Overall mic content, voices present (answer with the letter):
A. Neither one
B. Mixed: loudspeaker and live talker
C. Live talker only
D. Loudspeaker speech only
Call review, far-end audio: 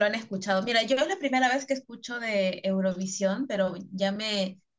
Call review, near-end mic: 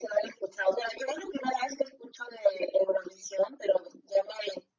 D